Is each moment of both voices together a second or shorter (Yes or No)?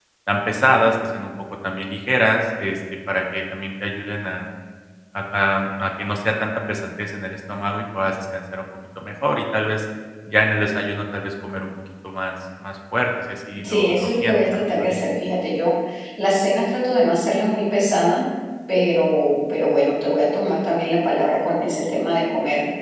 No